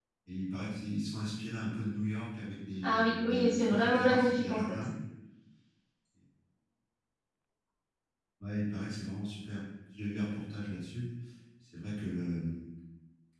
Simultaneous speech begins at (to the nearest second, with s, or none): 3 s